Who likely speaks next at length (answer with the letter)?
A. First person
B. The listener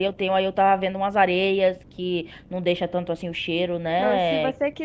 B